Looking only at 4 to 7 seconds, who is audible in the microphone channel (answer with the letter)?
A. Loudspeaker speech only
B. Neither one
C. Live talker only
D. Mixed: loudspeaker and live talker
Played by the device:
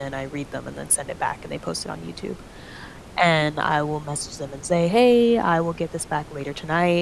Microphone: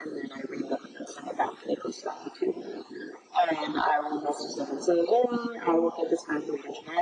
A